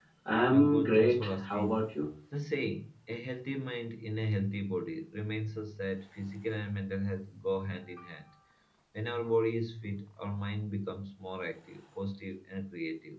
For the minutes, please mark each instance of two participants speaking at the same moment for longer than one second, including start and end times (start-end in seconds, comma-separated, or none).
0.5-1.8